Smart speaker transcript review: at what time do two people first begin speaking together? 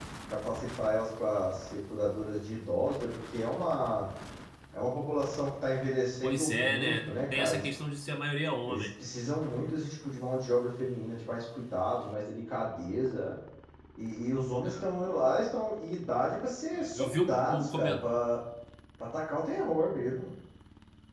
6.2 s

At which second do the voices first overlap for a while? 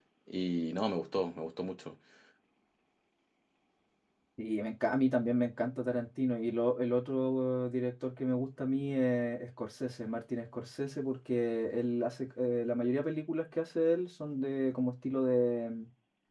none

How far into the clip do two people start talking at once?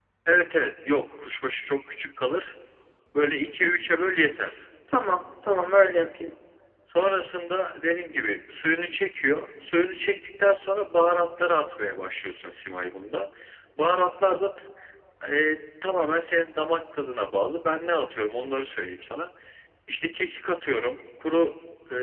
none

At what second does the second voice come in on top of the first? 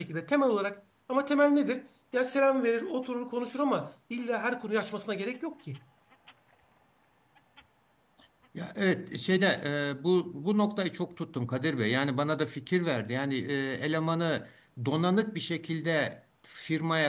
none

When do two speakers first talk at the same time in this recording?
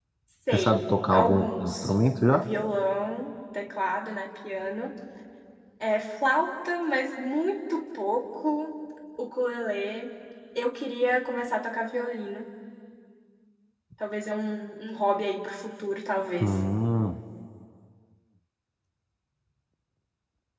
0.5 s

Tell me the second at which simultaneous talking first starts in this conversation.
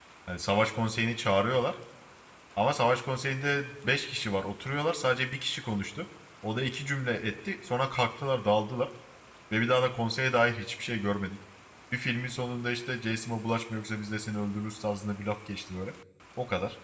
none

